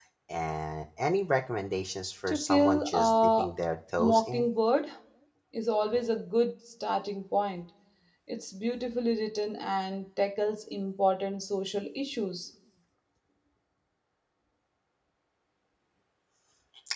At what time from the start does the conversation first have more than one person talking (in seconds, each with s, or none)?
2.3 s